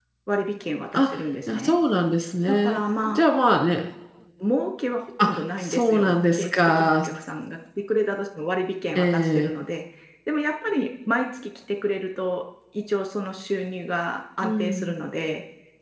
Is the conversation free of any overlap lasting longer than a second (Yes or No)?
No